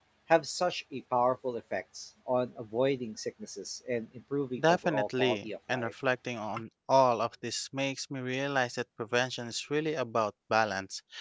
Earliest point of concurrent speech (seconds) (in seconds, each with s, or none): 4.6 s